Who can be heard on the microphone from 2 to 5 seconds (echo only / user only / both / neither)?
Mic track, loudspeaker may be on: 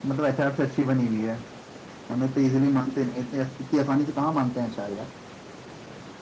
user only